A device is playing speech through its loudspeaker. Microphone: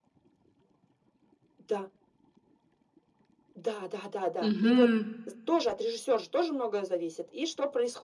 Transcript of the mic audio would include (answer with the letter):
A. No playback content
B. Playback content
B